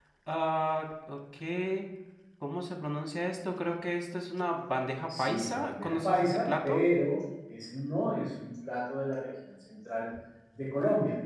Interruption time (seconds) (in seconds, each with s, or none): 5.1 s